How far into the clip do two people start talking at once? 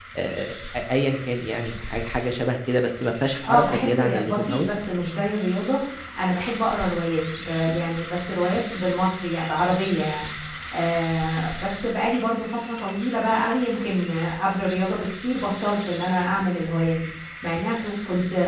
3 s

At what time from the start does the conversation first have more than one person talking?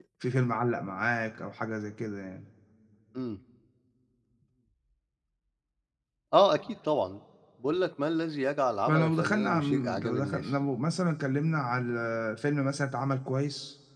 9 s

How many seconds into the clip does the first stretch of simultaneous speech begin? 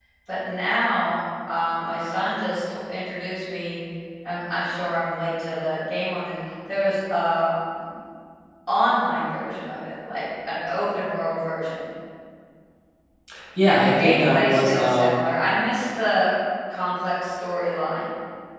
14 s

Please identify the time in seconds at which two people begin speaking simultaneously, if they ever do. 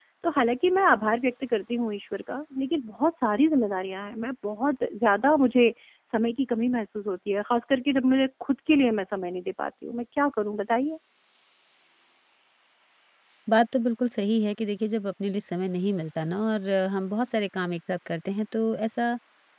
none

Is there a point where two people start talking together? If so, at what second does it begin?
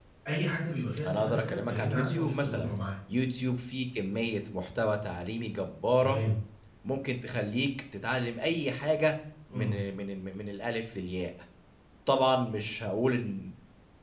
1 s

